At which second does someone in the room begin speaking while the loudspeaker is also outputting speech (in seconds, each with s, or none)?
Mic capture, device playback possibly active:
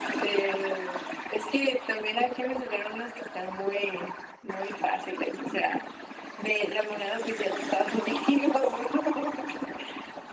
none